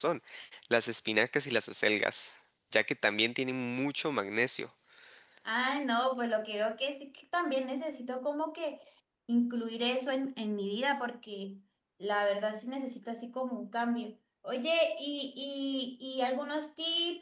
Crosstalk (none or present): none